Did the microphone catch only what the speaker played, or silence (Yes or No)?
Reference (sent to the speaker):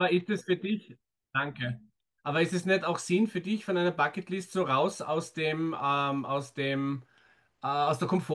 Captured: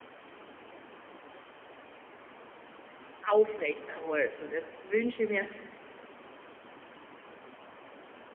No